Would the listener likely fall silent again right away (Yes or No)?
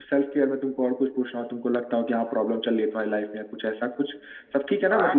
No